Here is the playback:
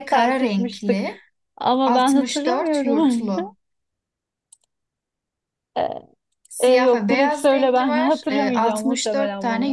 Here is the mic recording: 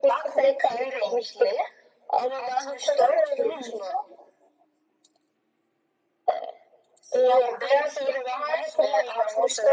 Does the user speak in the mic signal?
No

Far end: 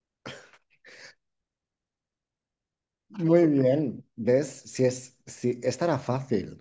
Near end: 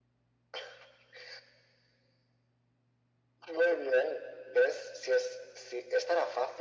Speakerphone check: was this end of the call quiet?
Yes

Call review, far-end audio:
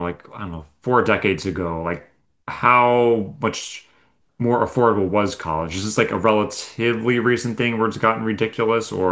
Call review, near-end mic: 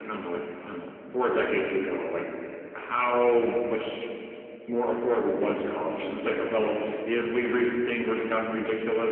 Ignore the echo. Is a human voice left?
No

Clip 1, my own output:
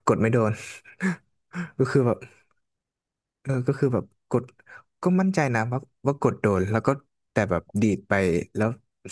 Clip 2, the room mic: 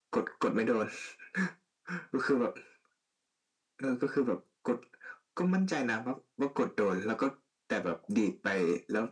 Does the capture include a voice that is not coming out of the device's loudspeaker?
No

